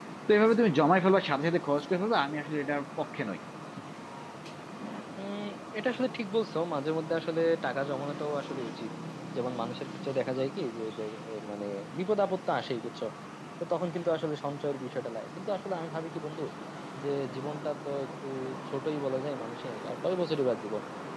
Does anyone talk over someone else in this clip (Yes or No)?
No